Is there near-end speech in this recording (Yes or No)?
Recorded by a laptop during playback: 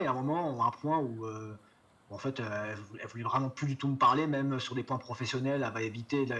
No